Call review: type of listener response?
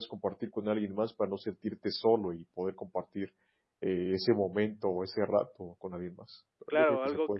taking over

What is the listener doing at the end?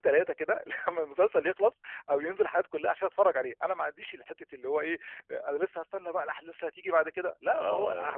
taking over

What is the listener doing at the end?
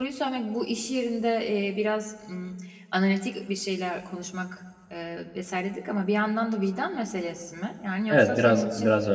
taking over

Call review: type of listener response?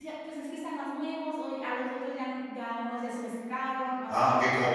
taking over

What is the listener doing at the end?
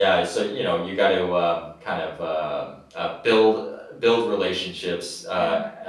listening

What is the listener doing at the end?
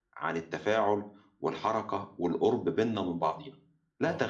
taking over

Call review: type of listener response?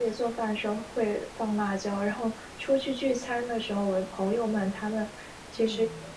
listening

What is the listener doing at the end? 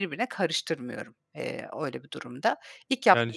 taking over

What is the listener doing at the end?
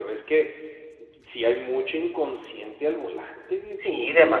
taking over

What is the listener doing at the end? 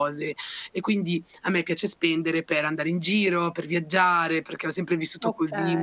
listening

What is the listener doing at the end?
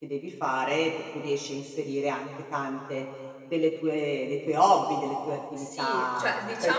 taking over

